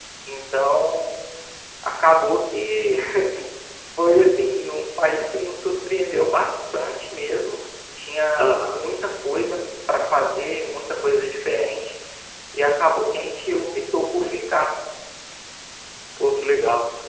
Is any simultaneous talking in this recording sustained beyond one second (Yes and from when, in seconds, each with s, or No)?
No